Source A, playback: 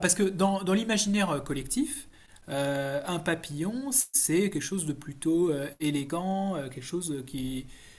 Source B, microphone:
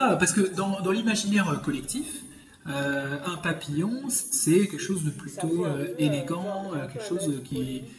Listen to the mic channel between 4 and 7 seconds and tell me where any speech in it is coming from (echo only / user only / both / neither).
both